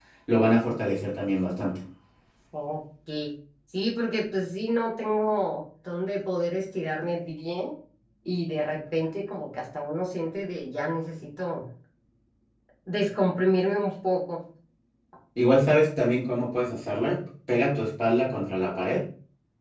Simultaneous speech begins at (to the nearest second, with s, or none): none